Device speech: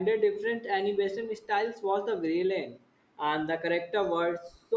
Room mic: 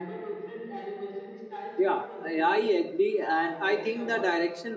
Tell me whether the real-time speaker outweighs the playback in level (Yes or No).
Yes